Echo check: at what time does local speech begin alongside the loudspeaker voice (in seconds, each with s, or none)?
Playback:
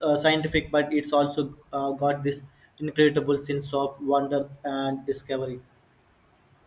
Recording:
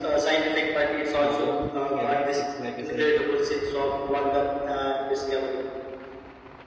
1.2 s